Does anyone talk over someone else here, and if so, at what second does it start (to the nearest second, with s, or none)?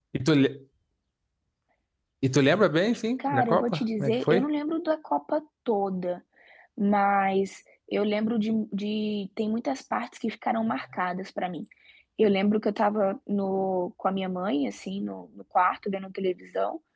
3 s